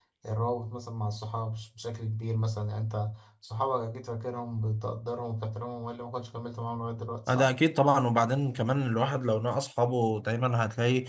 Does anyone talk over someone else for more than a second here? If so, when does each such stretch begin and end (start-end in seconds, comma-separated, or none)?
none